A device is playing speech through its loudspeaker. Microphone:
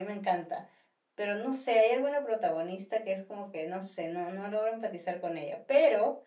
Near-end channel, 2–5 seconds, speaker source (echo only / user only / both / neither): echo only